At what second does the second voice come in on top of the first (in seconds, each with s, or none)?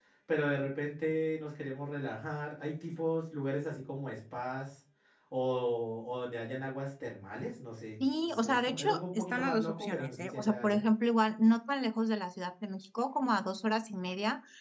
8.2 s